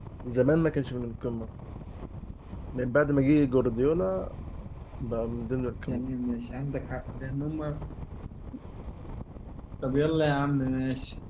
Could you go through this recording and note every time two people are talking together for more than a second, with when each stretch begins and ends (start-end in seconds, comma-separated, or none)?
none